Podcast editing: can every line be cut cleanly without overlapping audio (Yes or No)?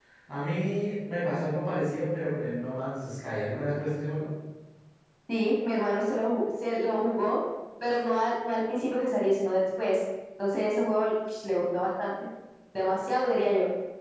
Yes